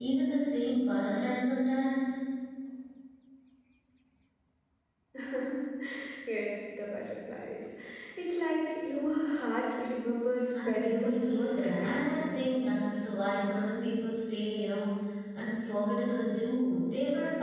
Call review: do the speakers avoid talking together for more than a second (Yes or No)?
No